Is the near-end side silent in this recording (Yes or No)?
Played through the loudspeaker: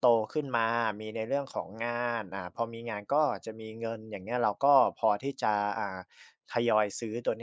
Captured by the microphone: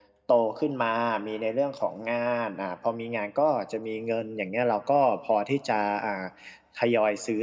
Yes